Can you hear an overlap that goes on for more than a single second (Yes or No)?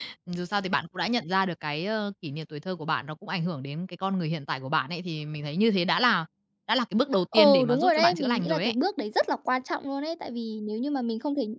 Yes